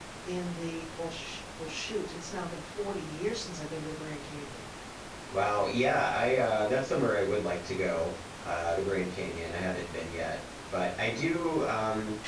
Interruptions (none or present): none